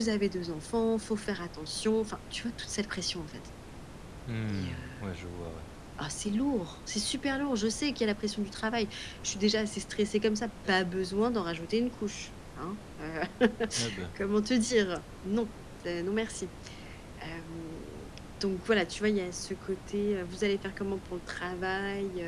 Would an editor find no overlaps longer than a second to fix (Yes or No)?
Yes